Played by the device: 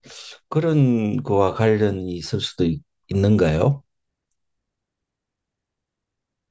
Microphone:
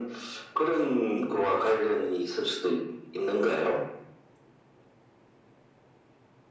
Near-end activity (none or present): none